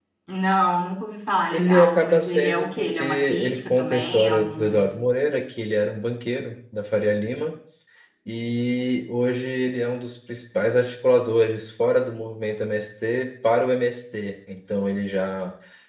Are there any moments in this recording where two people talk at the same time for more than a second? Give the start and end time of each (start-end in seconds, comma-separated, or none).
1.5-5.0